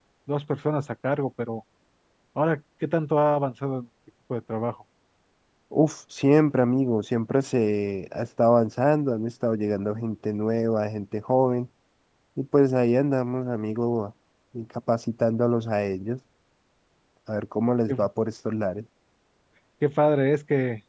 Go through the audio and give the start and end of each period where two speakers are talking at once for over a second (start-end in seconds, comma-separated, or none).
none